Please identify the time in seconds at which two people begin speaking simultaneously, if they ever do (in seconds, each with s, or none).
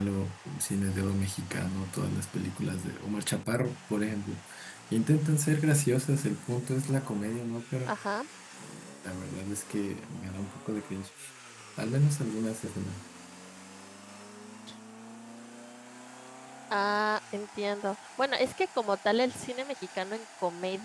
none